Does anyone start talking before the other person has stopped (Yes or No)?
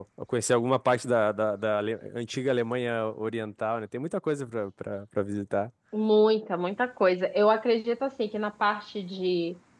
No